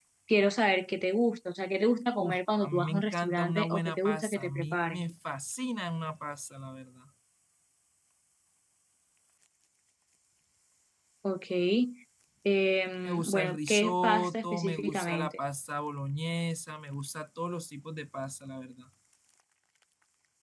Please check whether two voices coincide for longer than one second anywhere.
Yes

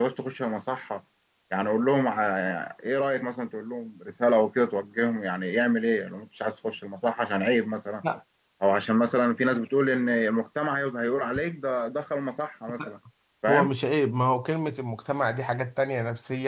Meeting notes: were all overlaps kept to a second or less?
Yes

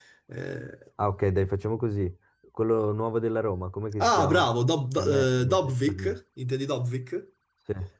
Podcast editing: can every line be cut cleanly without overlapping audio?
No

